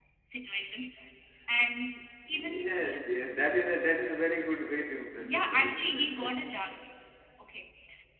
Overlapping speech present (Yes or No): Yes